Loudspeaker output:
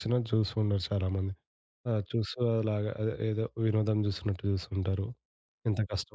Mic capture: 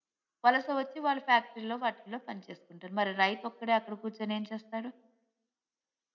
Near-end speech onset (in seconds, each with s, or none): 0.4 s